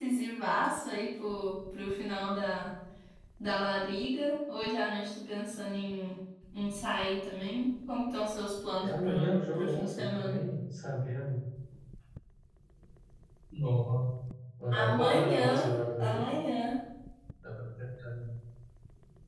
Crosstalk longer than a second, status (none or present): present